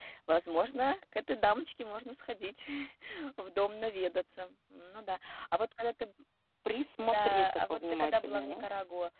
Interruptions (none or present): present